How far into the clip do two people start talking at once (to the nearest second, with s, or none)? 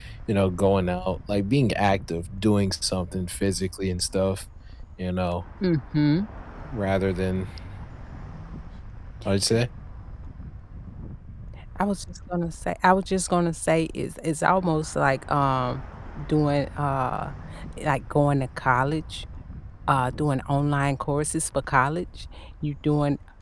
none